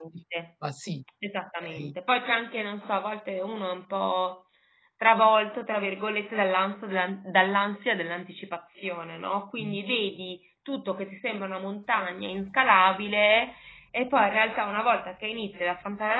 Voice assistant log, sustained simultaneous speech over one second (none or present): none